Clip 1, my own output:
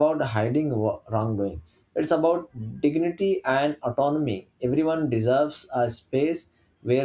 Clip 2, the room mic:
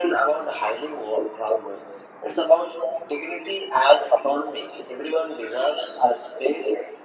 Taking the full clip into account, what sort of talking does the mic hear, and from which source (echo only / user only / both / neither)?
echo only